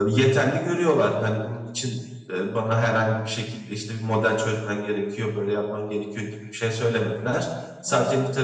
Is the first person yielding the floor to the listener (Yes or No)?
No